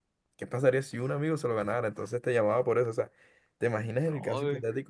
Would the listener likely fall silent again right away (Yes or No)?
Yes